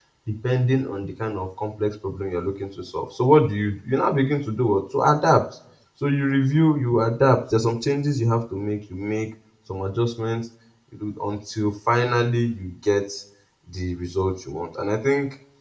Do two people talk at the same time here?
No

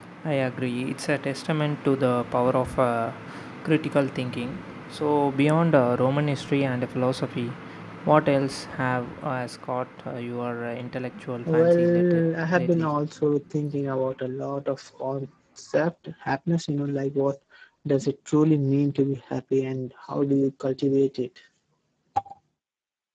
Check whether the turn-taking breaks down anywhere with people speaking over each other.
Yes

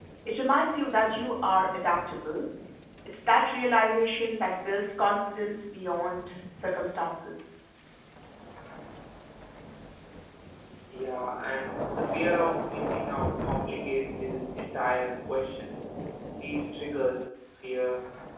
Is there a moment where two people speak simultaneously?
No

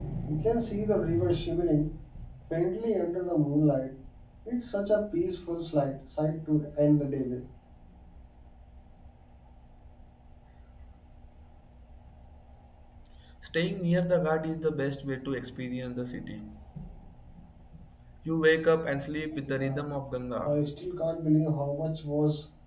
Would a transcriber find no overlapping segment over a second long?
Yes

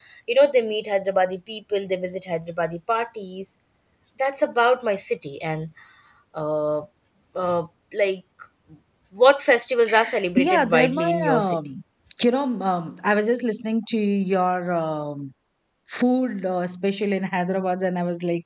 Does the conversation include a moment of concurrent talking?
Yes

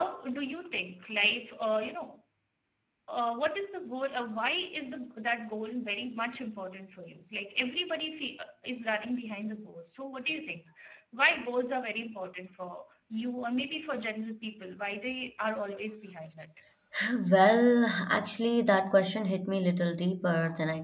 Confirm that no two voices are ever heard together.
Yes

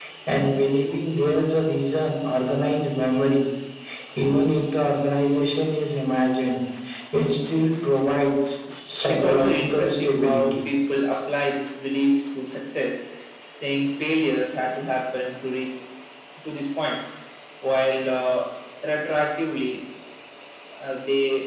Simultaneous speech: Yes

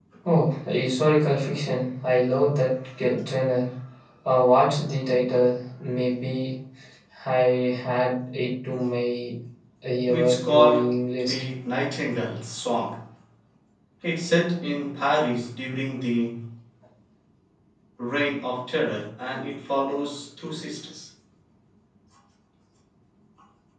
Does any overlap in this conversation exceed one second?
Yes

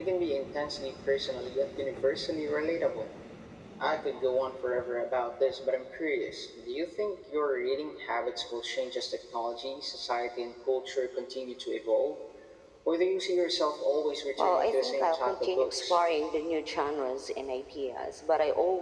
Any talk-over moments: Yes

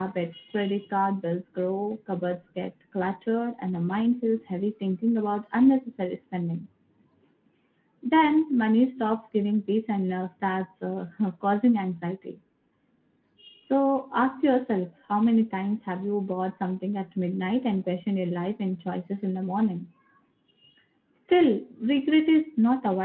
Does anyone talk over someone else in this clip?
No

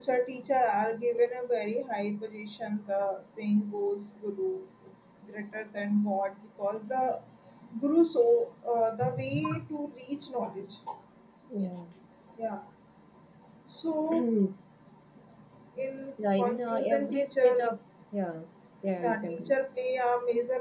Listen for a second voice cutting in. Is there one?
Yes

